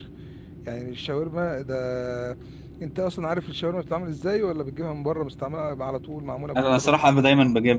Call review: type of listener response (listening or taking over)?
taking over